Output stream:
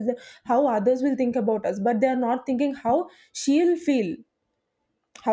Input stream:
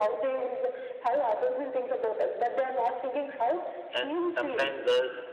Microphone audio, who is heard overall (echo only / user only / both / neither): both